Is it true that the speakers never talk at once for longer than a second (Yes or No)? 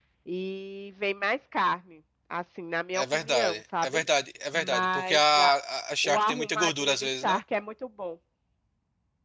No